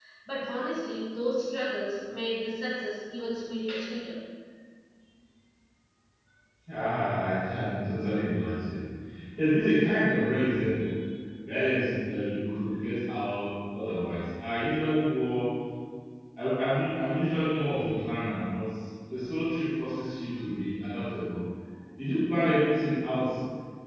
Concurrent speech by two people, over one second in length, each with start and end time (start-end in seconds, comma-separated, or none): none